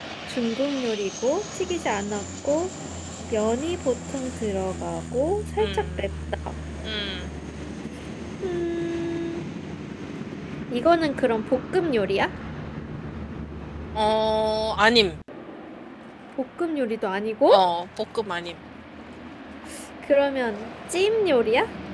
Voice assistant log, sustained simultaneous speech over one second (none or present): none